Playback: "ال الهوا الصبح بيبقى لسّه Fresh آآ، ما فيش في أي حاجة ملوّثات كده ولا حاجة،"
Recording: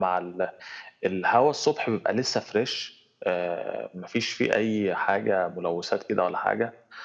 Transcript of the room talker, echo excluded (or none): none